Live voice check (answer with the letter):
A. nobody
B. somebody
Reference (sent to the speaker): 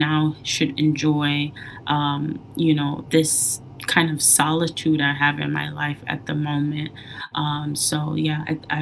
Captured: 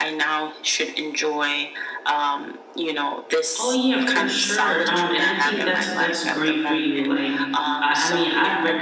B